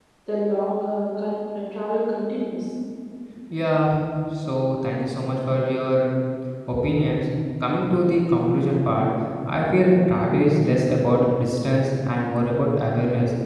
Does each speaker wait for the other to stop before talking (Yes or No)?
Yes